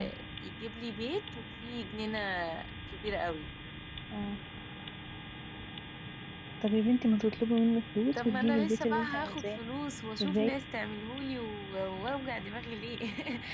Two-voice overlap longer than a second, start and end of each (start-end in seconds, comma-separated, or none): 8.1-9.6